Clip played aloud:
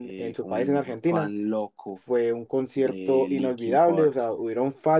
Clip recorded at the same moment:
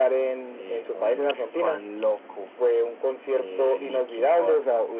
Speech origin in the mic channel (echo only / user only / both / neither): echo only